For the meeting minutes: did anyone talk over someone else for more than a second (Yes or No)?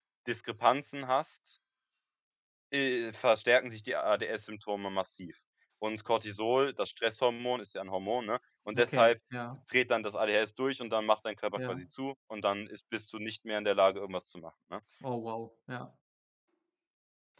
No